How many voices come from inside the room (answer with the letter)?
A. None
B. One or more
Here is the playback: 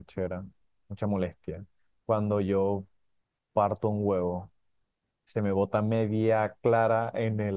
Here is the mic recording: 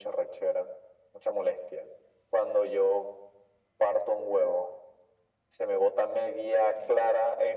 A